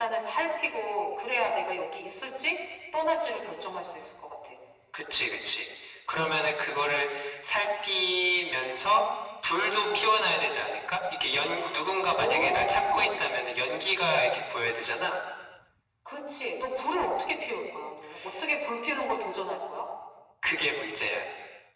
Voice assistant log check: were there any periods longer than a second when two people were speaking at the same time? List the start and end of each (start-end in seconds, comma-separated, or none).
12.1-13.3